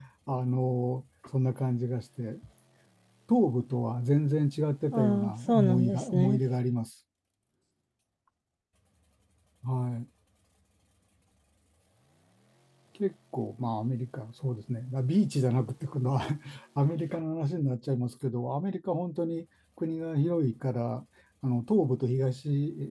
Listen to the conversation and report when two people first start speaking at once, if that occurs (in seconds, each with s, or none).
4.9 s